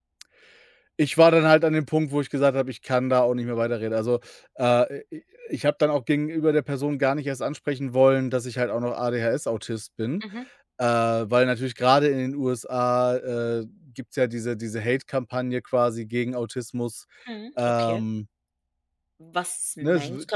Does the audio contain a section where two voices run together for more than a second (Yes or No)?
No